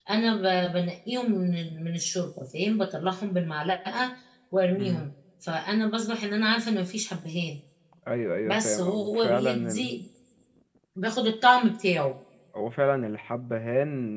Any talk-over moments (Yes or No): Yes